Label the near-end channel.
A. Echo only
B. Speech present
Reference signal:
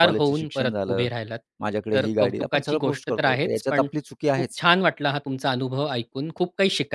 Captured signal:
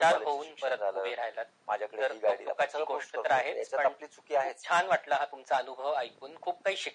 A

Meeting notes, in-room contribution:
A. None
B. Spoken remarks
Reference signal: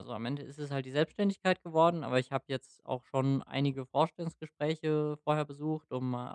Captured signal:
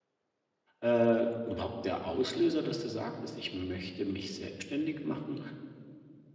B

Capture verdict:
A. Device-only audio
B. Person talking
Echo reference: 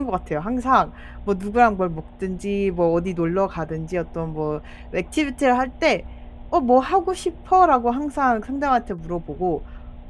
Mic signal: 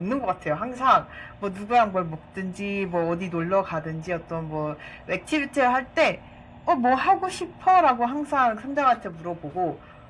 A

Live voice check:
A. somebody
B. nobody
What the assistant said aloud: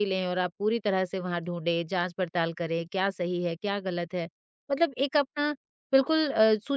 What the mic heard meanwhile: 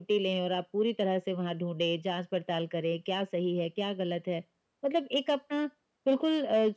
B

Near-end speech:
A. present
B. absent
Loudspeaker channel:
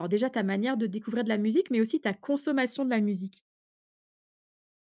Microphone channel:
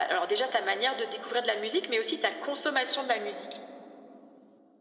B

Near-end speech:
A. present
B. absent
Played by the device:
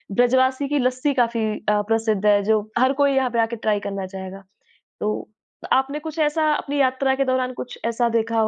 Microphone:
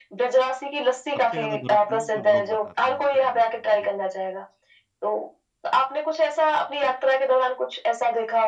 A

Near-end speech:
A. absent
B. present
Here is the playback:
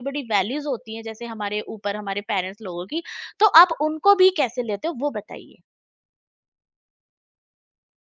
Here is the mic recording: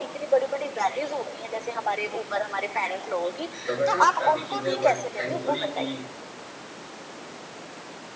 B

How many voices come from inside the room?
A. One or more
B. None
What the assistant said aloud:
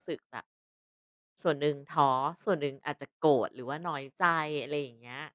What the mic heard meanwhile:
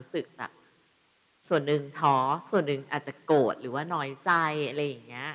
B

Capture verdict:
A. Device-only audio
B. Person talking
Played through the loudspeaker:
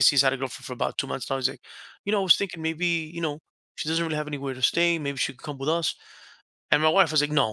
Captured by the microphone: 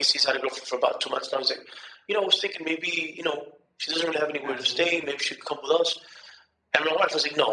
B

